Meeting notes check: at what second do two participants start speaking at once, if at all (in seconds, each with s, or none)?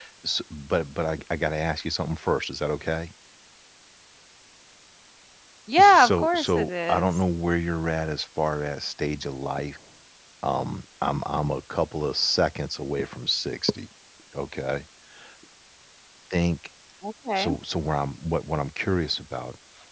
5.8 s